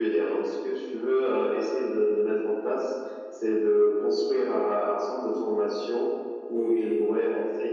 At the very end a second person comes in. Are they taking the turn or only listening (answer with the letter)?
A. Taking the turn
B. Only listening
B